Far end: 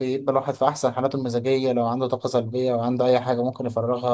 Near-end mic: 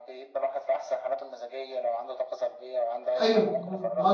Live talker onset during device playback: 3 s

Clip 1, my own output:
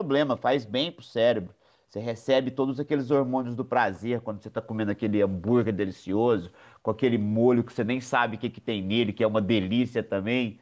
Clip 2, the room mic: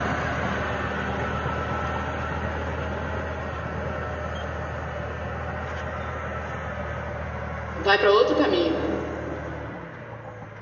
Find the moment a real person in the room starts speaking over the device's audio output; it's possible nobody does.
8 s

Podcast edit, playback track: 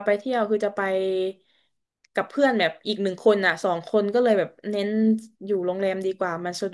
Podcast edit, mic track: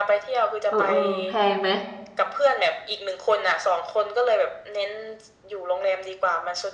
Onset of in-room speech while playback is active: 1 s

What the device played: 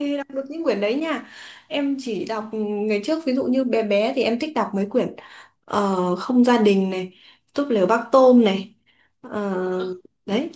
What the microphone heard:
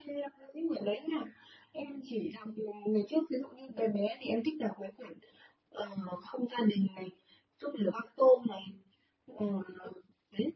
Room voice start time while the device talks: none

